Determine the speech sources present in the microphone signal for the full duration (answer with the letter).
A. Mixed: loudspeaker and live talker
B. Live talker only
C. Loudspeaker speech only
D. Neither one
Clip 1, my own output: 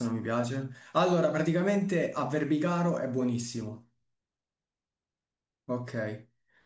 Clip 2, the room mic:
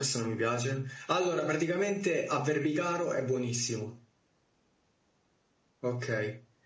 C